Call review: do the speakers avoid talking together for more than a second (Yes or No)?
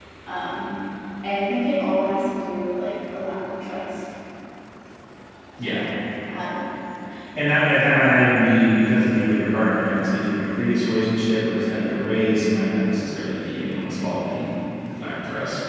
Yes